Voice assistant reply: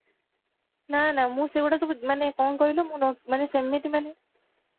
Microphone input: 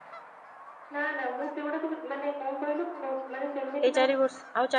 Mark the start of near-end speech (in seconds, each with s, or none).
3.9 s